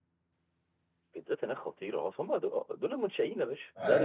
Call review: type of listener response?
taking over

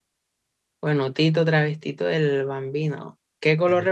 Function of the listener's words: listening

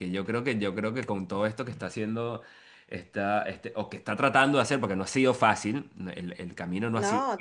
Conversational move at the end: listening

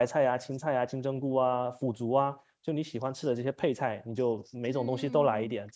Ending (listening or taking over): taking over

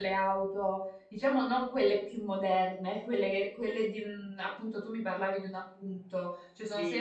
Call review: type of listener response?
taking over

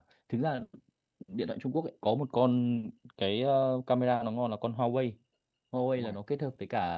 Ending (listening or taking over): listening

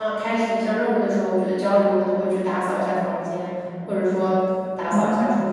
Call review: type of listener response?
taking over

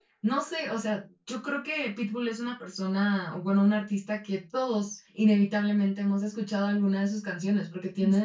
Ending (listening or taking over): listening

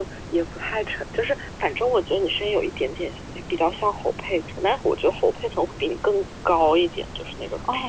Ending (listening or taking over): taking over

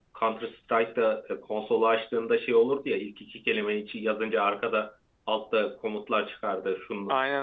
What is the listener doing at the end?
listening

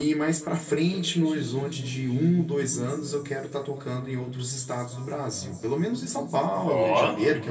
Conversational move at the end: listening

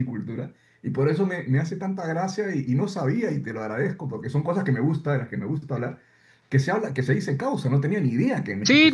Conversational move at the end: taking over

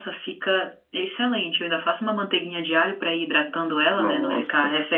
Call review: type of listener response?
taking over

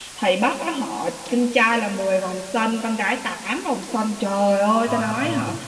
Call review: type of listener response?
listening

